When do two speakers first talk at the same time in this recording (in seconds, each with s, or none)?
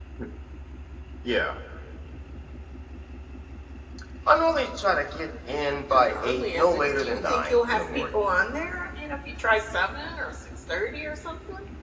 5.9 s